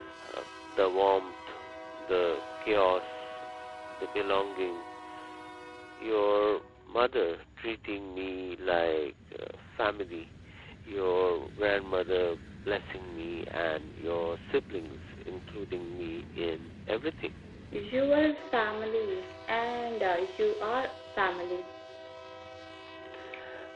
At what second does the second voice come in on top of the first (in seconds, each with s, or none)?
none